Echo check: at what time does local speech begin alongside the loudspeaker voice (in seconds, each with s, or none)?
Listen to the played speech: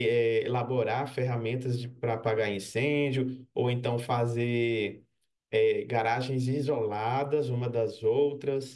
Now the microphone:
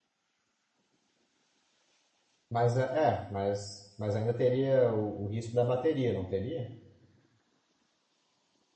2.5 s